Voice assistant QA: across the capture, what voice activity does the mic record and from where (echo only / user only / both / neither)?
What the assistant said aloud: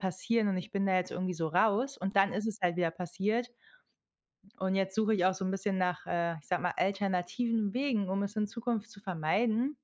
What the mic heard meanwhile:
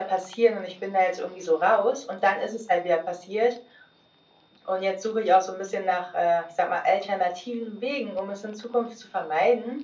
echo only